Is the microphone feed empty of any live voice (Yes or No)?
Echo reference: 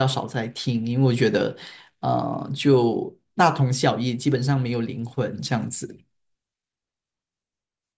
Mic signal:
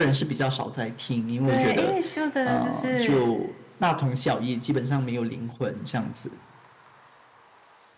No